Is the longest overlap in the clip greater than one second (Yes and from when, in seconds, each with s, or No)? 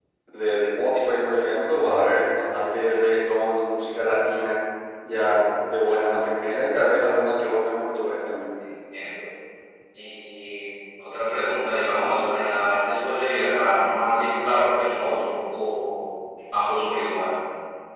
No